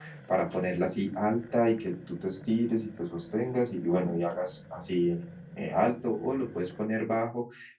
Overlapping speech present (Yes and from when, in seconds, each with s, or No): No